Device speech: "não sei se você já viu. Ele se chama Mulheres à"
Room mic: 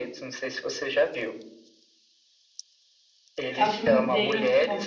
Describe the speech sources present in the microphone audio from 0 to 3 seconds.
echo only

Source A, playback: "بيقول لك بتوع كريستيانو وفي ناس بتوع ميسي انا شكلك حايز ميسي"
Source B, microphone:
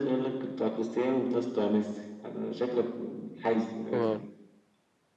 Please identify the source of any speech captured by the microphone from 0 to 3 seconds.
echo only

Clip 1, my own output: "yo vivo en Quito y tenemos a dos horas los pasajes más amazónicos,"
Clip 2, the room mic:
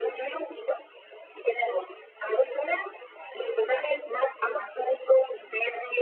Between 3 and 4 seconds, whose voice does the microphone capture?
echo only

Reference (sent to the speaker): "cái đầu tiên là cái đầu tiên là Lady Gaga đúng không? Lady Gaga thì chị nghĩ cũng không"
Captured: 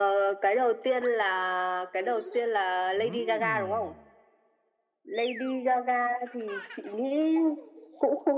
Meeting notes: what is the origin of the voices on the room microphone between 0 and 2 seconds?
echo only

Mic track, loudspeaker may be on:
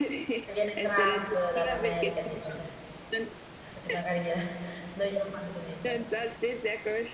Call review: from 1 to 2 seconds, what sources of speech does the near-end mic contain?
both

